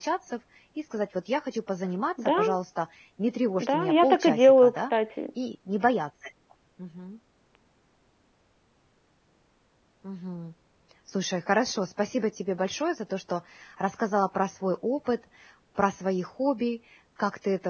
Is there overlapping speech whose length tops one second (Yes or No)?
Yes